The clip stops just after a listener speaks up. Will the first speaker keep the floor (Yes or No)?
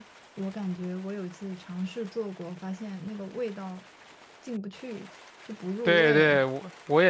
No